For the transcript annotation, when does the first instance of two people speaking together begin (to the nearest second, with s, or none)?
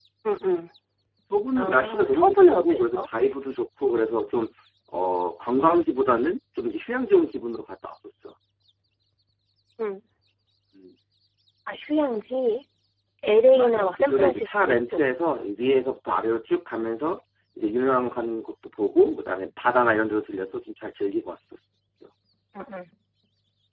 2 s